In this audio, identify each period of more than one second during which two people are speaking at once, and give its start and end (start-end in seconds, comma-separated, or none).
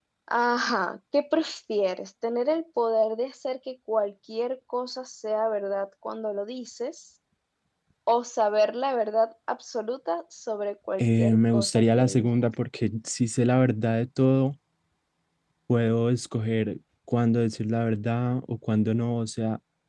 11.0-12.3